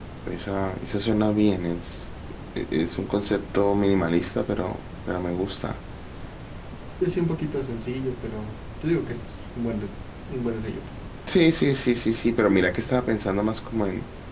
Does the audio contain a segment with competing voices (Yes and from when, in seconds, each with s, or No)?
No